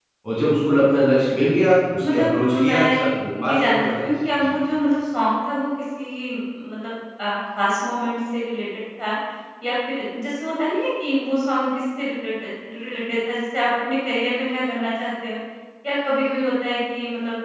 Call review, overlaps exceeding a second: present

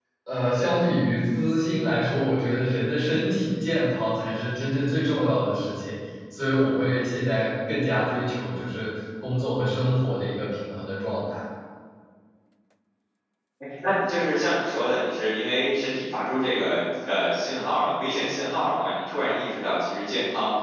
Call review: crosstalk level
none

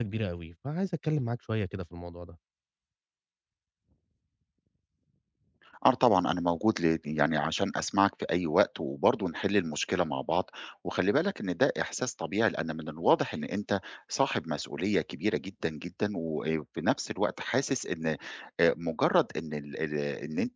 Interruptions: none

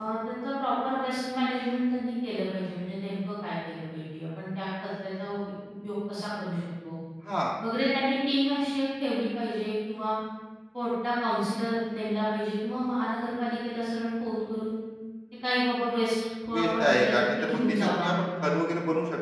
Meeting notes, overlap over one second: present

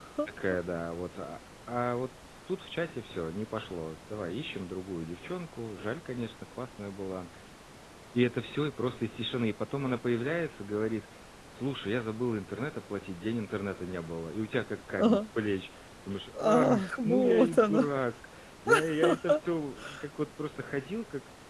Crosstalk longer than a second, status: present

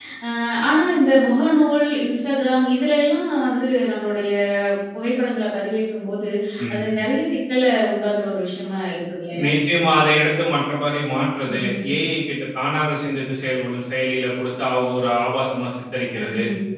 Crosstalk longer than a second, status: none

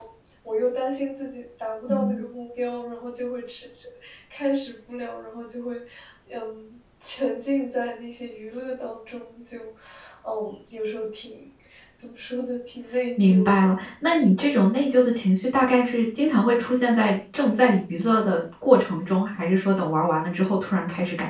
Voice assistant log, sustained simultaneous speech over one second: none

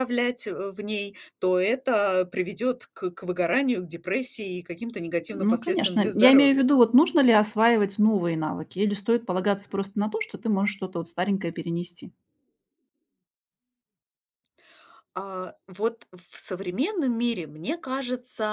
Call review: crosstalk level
present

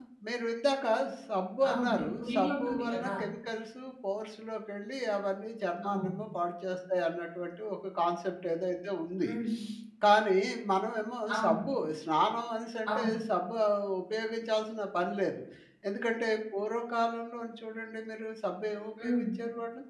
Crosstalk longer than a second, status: present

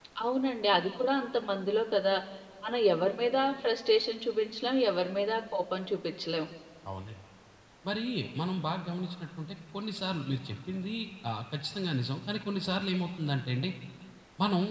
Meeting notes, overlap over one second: none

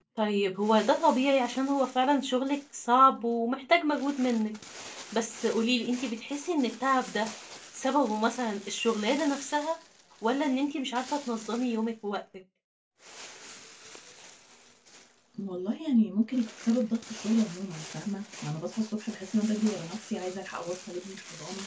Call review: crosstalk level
none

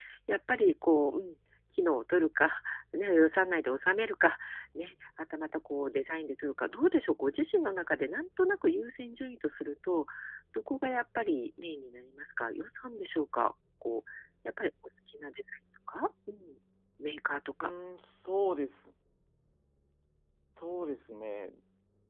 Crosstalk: none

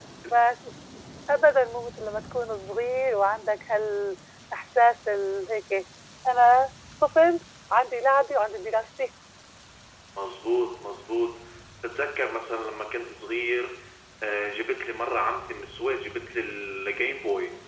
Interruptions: none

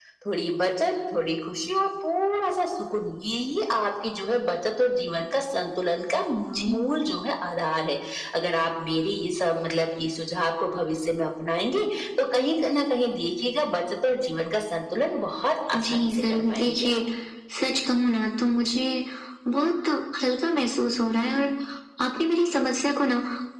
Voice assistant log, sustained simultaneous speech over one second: present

